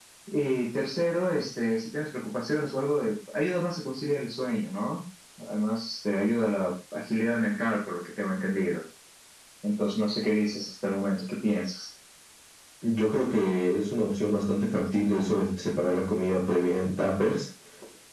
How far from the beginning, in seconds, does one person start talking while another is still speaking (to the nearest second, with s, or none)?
none